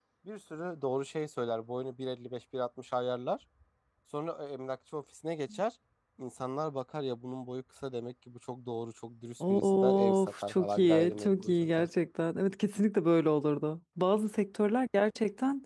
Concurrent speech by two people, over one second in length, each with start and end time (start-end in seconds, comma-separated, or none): 9.4-11.9